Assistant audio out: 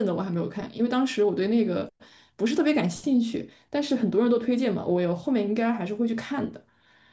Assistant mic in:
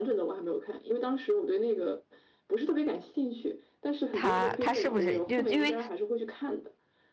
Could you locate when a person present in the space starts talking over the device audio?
4.1 s

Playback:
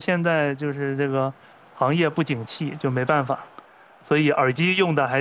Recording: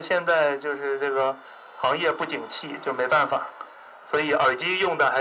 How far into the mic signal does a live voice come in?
none

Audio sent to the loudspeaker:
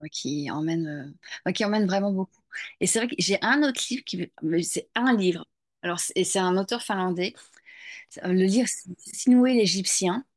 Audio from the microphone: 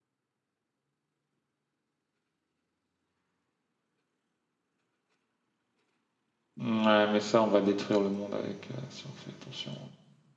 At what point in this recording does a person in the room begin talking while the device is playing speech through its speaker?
6.6 s

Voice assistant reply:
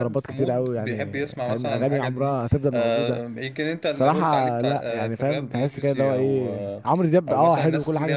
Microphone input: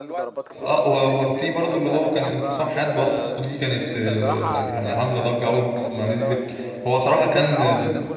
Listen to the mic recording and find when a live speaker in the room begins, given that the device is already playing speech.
0.6 s

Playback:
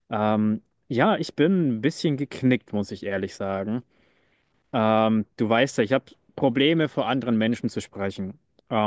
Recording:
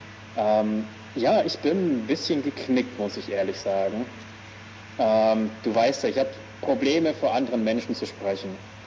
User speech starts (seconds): none

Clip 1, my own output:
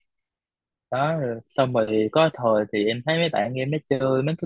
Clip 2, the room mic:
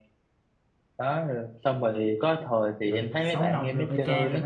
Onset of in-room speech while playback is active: 2.9 s

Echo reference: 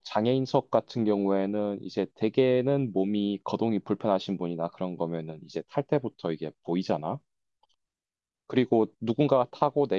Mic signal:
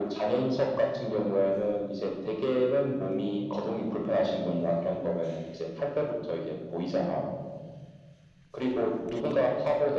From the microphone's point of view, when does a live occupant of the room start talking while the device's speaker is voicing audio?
none

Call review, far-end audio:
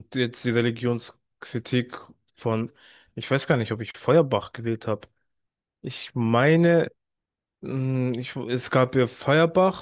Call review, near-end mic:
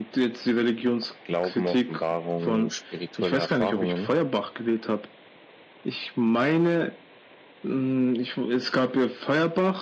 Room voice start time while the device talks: 1.0 s

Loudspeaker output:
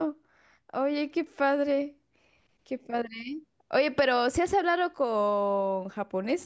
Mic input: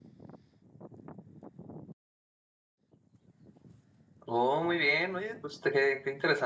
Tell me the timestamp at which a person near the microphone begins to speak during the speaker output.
4.2 s

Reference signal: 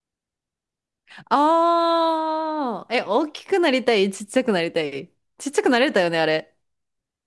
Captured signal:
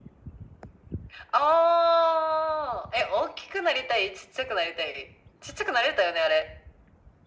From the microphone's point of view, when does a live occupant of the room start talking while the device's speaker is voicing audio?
none

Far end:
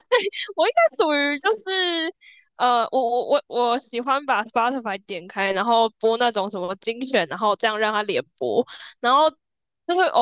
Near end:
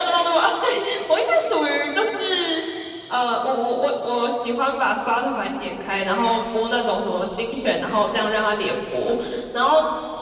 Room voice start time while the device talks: none

